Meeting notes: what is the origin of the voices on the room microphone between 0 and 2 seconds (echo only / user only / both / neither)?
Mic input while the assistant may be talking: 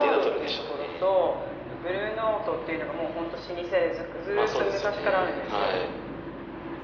echo only